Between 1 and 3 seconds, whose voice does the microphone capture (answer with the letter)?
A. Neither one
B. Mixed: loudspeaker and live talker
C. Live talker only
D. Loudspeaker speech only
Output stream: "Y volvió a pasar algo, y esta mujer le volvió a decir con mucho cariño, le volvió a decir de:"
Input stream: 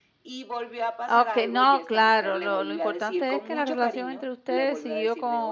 B